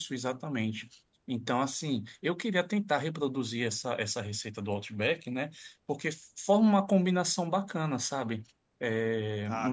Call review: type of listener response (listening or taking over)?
listening